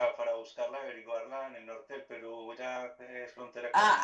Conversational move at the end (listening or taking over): taking over